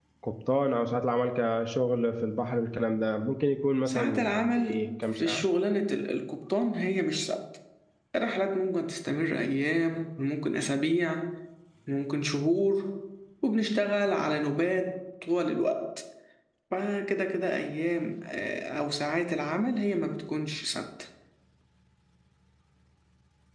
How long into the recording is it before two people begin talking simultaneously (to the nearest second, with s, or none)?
4 s